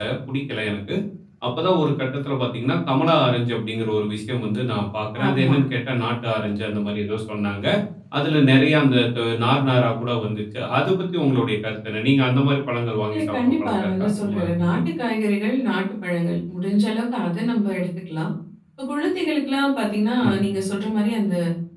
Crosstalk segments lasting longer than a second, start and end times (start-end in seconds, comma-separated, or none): 13.1-14.8